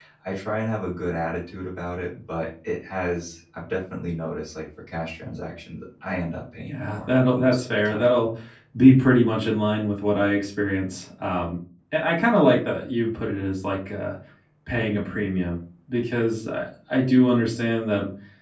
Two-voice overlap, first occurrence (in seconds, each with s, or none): 6.7 s